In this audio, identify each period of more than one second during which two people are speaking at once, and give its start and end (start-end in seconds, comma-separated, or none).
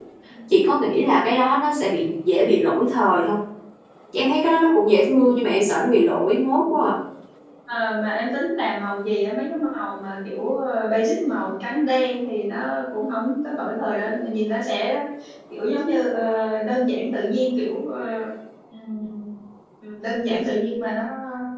none